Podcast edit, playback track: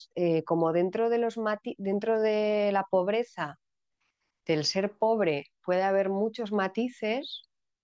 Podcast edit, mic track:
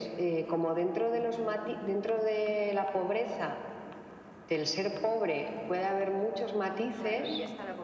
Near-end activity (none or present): present